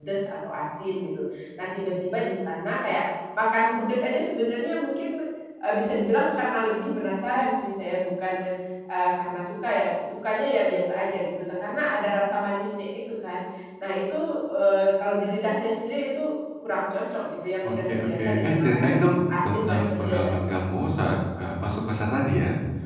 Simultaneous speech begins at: 17.6 s

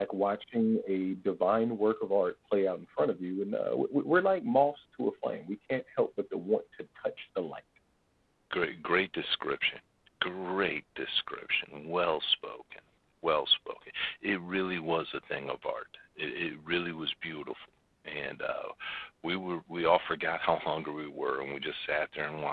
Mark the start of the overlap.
none

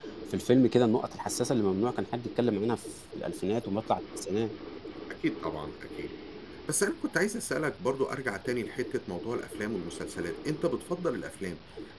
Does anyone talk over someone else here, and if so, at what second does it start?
none

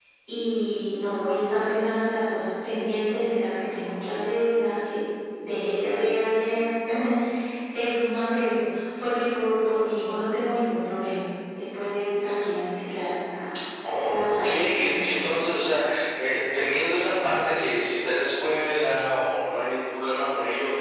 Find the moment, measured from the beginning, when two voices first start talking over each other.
14.0 s

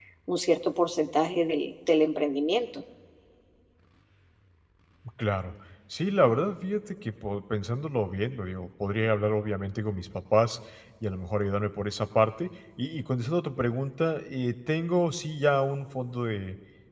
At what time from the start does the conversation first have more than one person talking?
none

